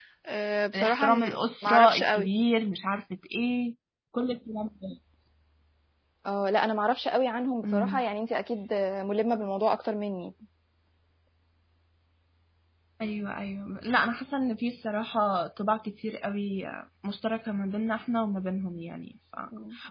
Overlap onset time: 0.8 s

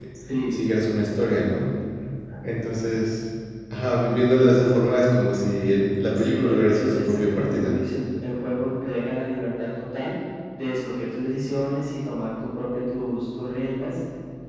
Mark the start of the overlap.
6.2 s

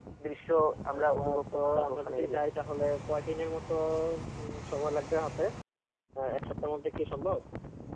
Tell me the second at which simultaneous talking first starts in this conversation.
0.9 s

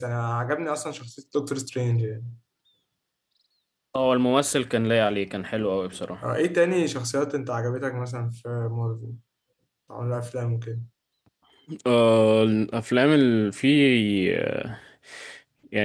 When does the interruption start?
none

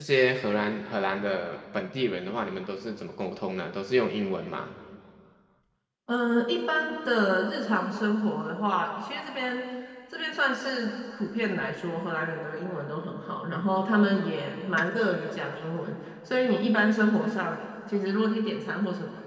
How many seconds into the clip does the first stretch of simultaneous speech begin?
none

